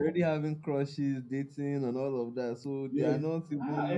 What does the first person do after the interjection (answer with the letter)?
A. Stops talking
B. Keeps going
A